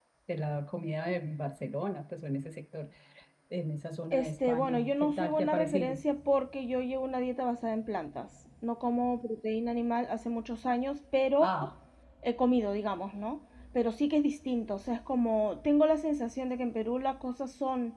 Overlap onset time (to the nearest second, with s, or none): 4 s